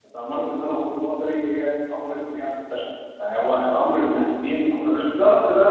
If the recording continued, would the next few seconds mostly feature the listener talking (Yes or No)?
Yes